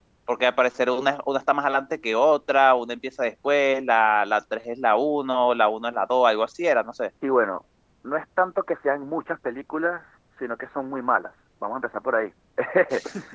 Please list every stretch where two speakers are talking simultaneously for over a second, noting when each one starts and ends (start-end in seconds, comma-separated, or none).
none